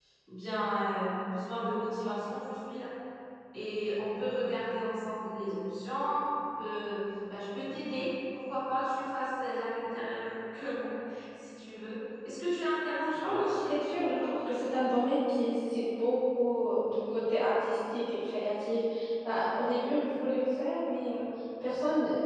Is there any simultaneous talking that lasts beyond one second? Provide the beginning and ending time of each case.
13.0-14.2

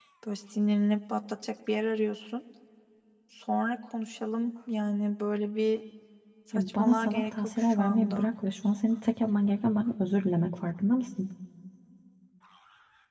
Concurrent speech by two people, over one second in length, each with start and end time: 6.5-8.2

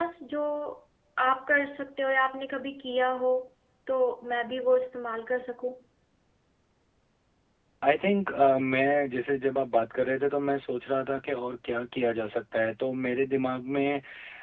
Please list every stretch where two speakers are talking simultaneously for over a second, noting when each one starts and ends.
none

